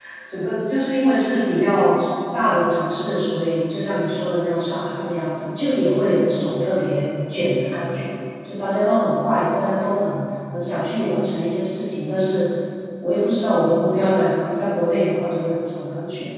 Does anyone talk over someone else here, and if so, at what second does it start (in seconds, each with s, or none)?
none